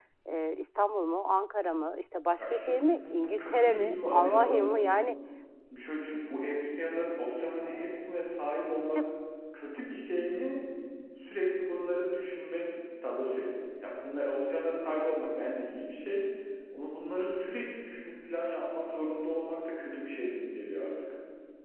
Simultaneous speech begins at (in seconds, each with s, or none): 2.4 s